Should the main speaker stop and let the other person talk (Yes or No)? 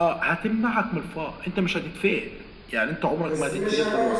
Yes